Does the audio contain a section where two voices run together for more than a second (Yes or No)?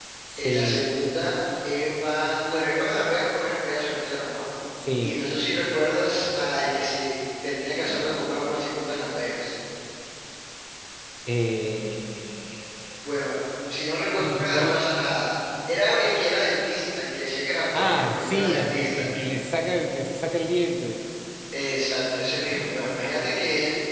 Yes